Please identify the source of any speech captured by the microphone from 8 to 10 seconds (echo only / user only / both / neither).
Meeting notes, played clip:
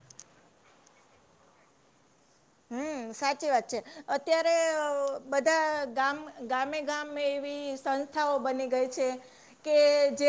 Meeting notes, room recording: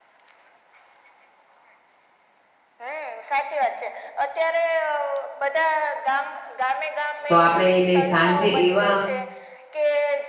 both